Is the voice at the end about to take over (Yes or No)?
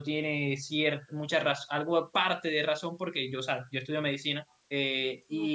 No